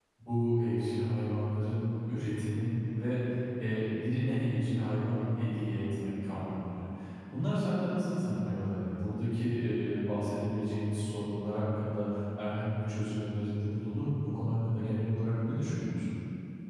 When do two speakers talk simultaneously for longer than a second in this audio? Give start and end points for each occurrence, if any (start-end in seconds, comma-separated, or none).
none